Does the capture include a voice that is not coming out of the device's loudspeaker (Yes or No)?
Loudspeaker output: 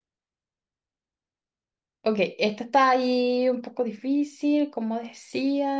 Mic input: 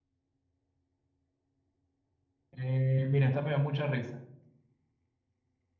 Yes